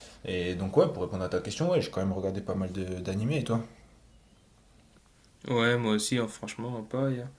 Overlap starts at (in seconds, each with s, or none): none